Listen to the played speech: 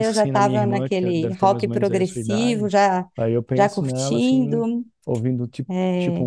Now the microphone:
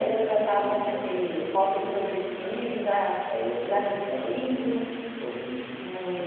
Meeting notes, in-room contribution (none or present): none